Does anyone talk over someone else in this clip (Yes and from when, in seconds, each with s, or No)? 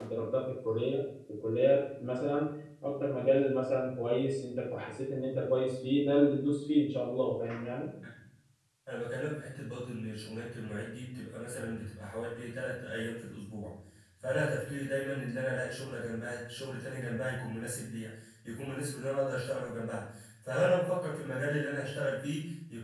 No